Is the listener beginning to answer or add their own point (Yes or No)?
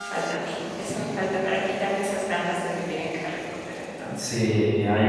Yes